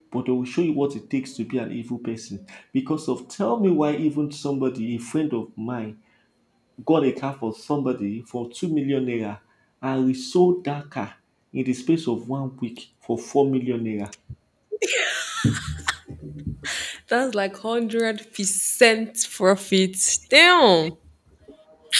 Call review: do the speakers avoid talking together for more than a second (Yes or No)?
Yes